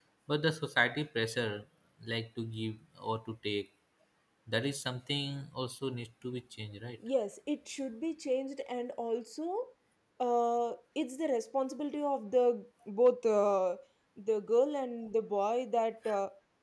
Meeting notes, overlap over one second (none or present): none